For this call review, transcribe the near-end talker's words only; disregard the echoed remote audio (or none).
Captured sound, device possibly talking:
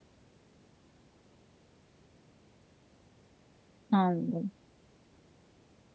Anladım.